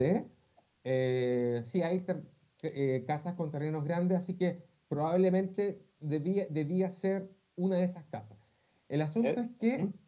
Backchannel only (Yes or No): No